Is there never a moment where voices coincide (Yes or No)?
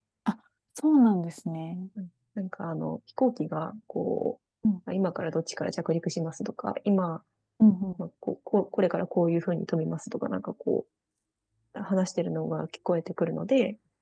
Yes